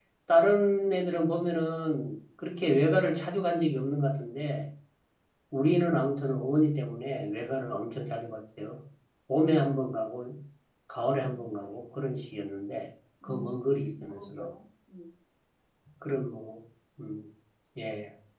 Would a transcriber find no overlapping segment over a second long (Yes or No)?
No